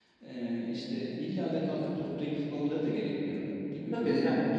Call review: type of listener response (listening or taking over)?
taking over